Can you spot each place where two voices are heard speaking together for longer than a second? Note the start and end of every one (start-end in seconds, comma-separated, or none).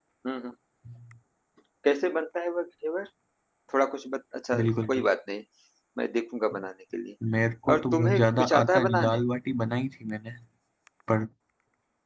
7.7-9.2